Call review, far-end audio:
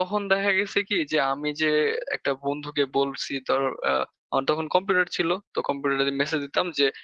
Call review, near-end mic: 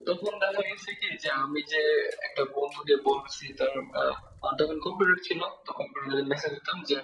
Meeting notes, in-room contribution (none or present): none